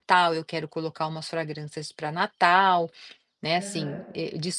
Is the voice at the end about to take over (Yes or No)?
No